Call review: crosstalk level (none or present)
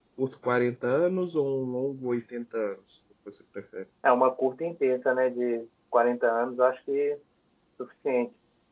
none